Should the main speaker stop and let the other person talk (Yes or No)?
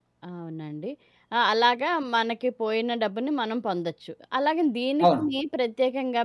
No